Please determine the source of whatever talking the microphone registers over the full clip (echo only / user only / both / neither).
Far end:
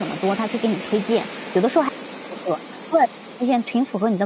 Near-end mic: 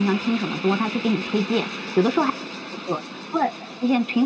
echo only